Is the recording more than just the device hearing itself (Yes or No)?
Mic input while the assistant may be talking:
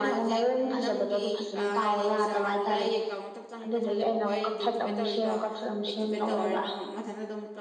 No